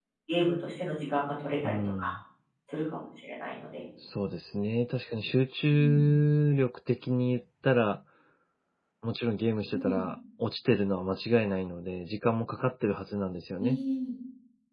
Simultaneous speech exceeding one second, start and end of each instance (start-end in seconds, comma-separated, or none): none